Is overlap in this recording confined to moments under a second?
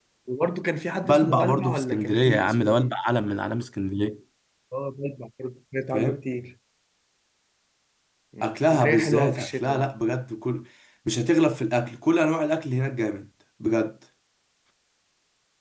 No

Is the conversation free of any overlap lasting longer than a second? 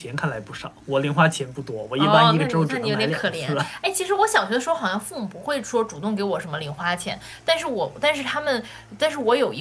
No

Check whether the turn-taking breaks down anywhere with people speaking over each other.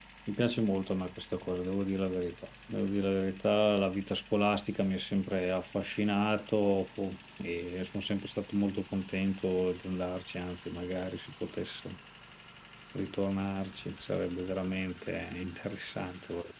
No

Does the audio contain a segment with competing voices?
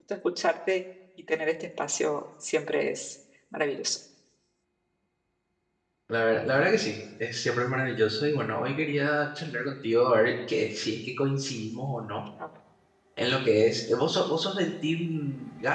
No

